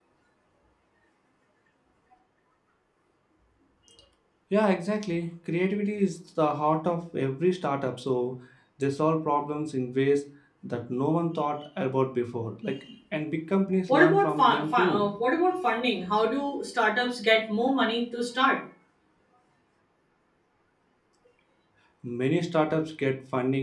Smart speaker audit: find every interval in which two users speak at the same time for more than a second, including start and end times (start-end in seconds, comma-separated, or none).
13.9-15.1